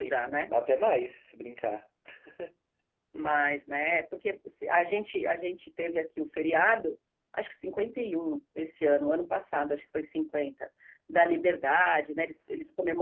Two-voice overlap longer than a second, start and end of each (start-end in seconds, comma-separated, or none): none